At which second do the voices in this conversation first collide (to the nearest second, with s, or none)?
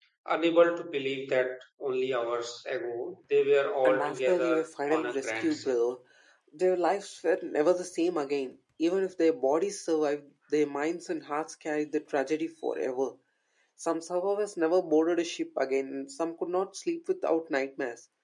4 s